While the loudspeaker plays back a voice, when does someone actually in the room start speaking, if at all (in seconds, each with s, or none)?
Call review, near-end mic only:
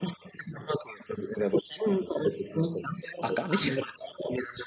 3.2 s